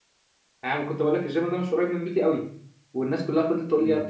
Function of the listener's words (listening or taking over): listening